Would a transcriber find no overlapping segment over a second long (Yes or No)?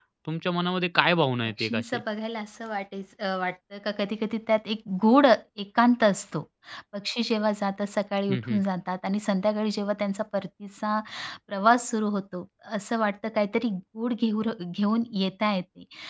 Yes